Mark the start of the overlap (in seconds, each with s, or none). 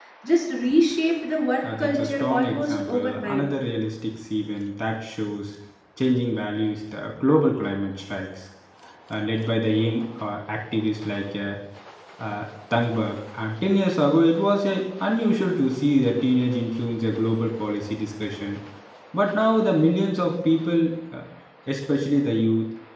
1.6 s